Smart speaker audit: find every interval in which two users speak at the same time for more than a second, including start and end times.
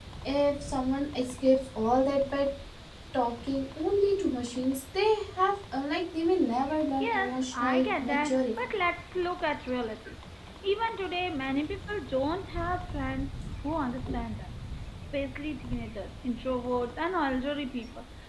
7.0-8.7

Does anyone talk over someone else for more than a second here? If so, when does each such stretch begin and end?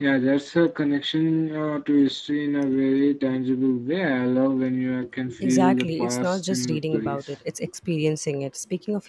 5.4-7.2

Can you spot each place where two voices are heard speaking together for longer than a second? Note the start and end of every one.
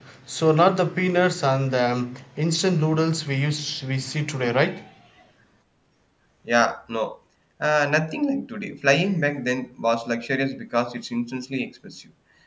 none

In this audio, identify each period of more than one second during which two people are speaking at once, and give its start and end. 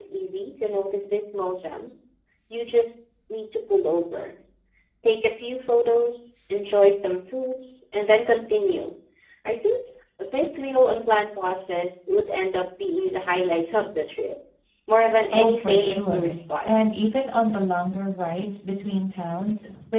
15.3-16.7

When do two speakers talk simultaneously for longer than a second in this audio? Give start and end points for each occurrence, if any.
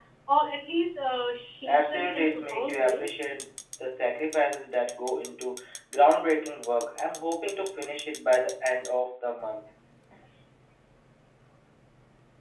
1.6-3.2

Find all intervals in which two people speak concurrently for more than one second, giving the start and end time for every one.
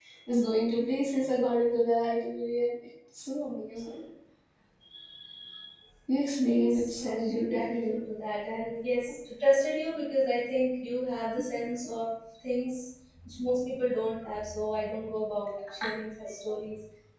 6.5-8.0

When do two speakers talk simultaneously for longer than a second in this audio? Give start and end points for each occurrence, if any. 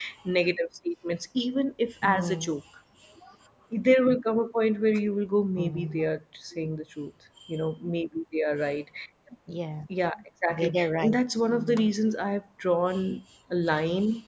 10.5-11.9

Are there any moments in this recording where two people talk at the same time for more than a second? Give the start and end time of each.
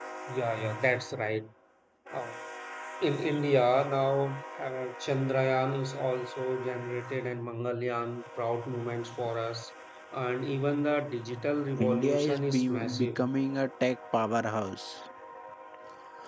11.8-13.2

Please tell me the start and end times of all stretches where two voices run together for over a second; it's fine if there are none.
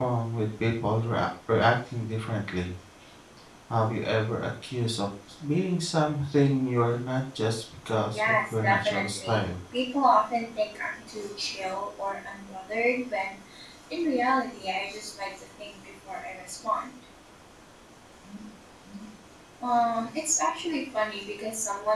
8.1-9.4

